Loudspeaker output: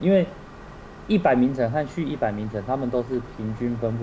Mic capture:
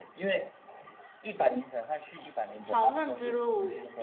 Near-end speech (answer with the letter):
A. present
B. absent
A